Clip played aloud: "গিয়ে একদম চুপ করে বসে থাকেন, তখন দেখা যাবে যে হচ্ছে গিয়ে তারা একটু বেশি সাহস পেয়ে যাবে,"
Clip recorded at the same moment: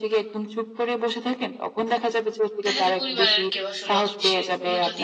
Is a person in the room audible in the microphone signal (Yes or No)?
Yes